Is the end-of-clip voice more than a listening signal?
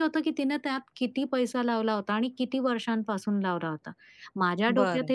No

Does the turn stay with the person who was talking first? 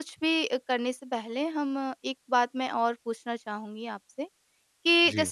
Yes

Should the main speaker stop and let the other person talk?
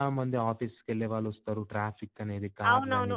Yes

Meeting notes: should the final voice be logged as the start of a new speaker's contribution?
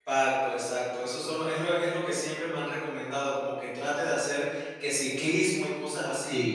No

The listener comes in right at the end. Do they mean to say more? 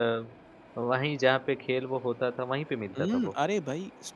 Yes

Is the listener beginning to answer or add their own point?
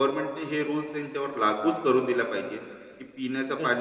No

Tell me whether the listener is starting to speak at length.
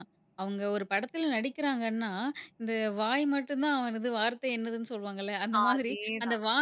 No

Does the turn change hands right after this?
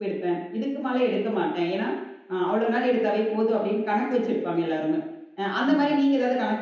No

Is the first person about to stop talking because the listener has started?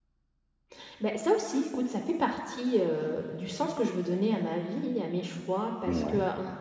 No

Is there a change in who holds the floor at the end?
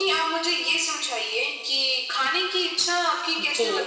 No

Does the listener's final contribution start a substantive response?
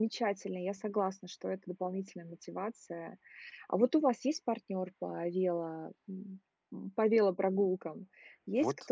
Yes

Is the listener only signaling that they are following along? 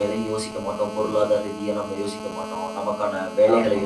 Yes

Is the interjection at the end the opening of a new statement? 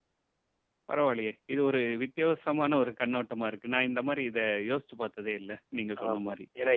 Yes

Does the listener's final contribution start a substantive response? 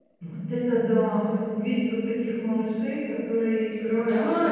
Yes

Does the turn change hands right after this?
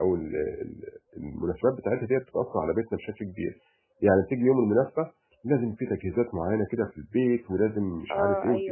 No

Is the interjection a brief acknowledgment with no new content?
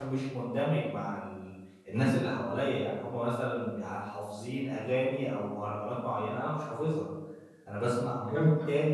Yes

